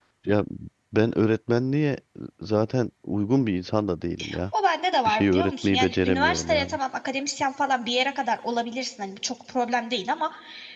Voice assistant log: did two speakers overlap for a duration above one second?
Yes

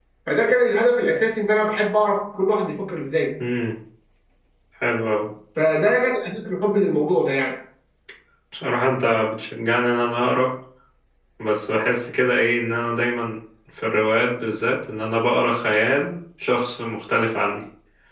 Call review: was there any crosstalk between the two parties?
No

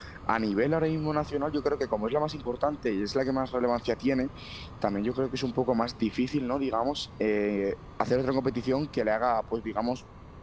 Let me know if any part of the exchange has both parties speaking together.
No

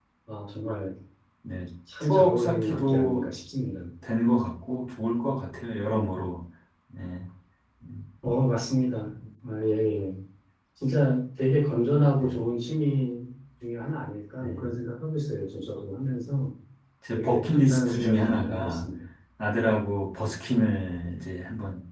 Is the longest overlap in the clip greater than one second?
Yes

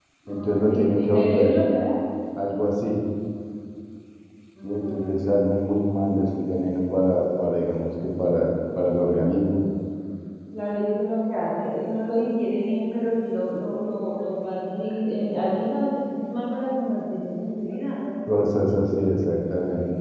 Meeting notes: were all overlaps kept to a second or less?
No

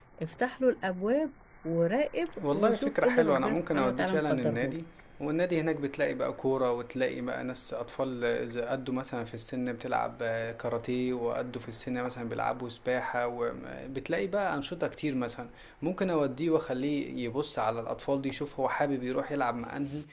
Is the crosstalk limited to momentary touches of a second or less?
No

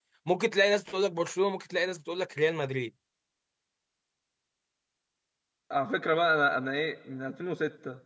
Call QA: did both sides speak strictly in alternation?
Yes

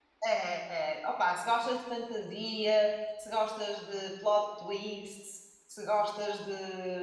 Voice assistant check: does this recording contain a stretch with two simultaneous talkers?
No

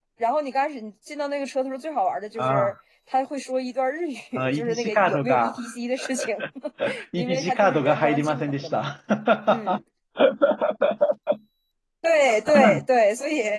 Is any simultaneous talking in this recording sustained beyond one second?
Yes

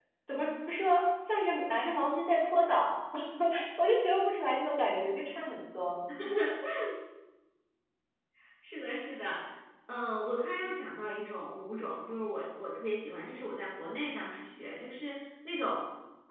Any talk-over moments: No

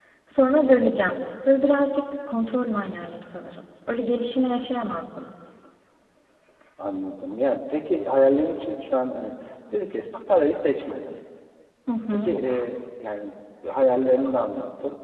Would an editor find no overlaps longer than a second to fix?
Yes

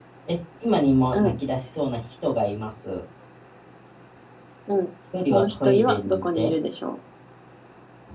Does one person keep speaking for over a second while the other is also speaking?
Yes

